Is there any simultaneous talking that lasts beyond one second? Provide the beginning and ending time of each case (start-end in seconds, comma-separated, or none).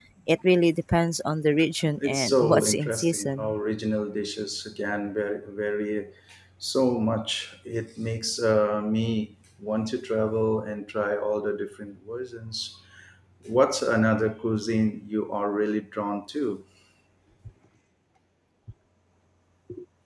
2.0-3.5